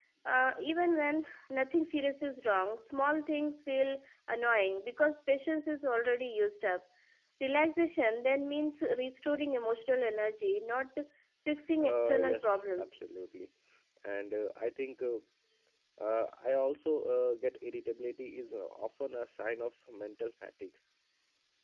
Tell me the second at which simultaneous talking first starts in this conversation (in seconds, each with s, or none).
11.8 s